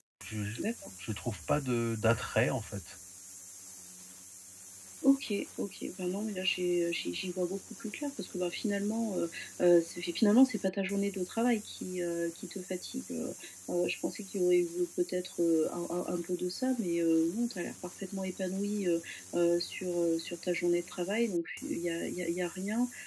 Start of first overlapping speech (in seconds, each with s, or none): none